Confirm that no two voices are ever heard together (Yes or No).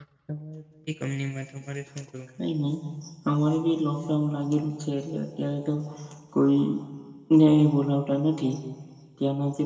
Yes